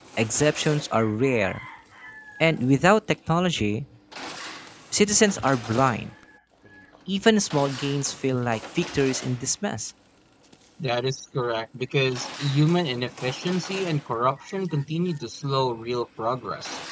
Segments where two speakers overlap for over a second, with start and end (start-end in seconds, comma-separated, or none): none